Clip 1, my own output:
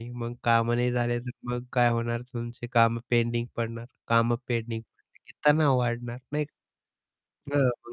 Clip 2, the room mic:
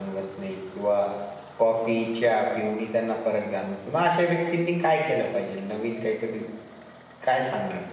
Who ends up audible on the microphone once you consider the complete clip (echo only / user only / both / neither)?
user only